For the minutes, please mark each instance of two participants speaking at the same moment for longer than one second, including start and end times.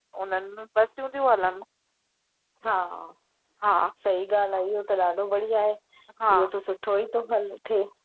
none

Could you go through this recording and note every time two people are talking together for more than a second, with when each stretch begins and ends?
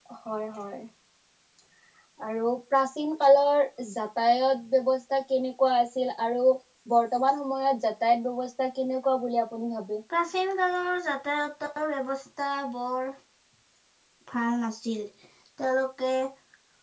none

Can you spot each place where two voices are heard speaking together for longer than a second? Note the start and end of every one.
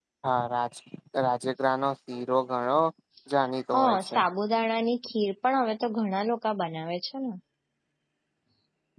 none

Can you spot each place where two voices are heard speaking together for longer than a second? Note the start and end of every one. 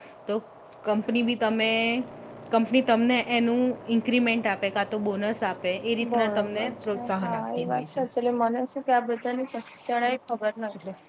6.1-8.0

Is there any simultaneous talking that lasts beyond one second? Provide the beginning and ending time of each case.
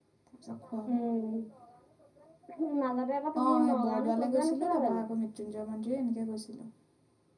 3.4-5.0

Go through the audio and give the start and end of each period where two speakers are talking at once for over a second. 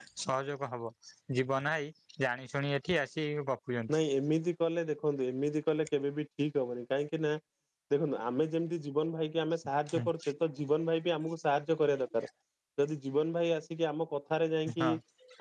none

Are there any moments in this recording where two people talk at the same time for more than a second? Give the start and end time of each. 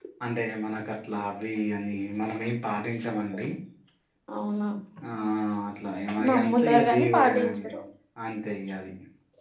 6.3-7.7

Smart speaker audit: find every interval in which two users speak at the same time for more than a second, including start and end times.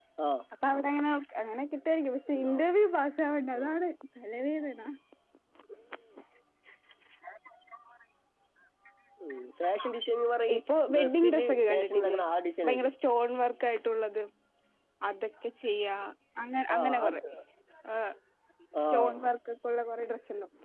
10.9-12.2

